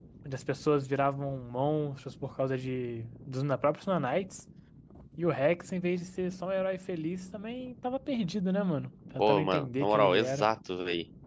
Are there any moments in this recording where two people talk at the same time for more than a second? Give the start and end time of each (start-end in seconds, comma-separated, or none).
9.2-10.5